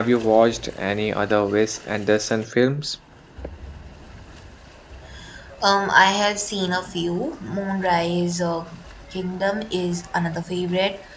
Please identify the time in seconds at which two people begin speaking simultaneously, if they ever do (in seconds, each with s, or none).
none